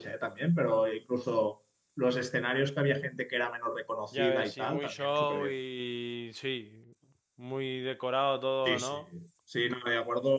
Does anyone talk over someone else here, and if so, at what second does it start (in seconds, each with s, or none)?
4.1 s